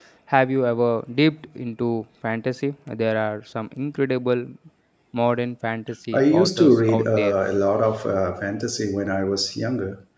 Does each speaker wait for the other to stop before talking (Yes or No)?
No